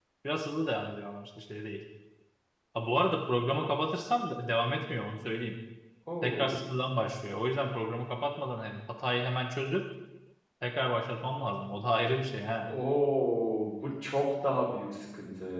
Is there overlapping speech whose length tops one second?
No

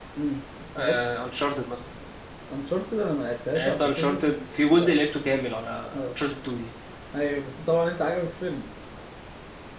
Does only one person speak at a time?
No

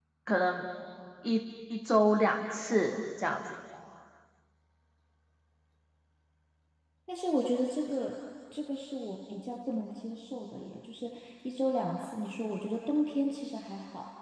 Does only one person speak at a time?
Yes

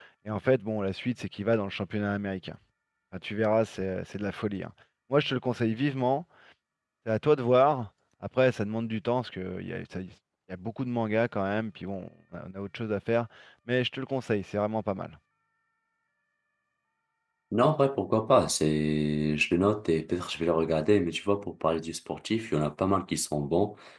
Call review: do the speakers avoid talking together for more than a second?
Yes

